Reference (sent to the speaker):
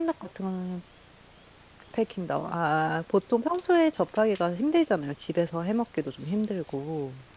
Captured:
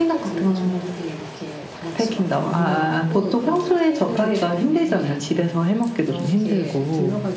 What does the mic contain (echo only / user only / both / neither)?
both